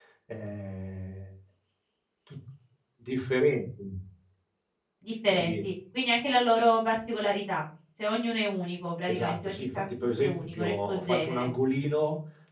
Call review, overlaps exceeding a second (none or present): present